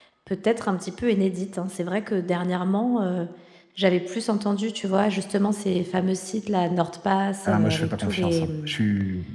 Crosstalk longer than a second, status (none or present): present